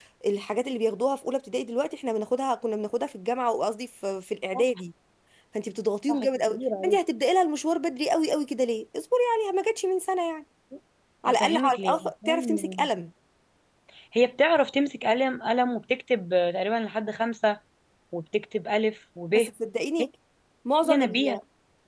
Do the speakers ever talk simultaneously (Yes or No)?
Yes